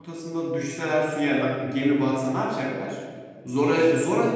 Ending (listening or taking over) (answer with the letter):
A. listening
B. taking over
A